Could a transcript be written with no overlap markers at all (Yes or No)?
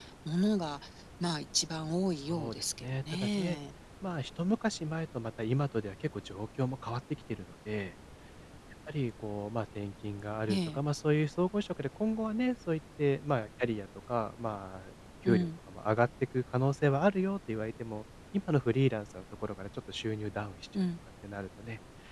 No